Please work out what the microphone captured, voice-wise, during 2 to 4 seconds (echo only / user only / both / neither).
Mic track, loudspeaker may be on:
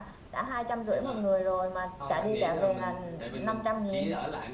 both